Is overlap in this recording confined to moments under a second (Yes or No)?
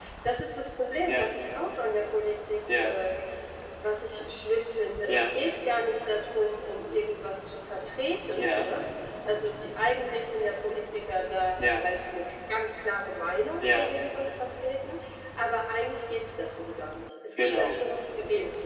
Yes